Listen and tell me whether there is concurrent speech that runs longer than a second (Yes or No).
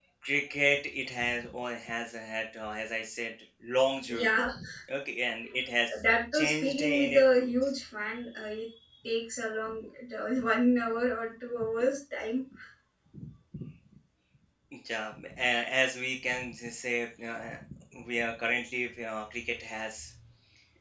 Yes